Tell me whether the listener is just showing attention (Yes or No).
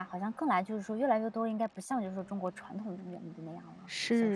No